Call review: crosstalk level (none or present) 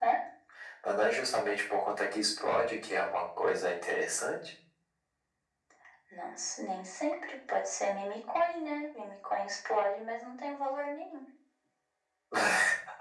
none